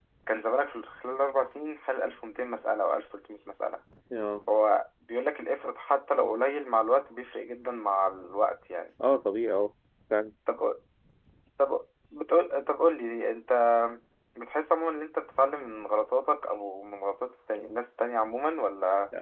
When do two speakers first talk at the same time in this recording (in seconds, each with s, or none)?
none